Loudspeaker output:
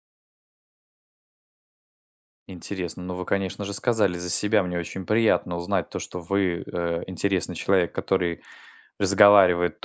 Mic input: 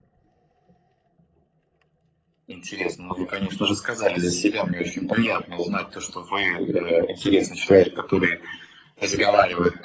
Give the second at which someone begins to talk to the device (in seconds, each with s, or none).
none